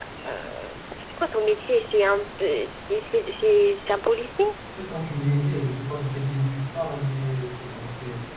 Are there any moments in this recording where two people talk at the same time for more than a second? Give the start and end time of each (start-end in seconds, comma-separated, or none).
none